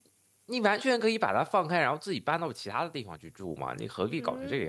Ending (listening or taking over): taking over